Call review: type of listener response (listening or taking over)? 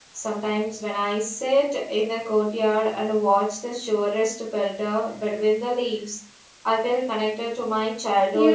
taking over